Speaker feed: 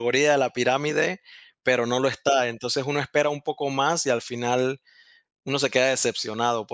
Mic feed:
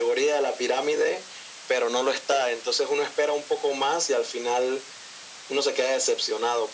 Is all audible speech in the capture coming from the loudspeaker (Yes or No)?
Yes